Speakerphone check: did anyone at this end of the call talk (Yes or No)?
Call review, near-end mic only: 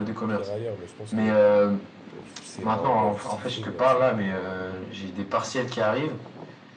Yes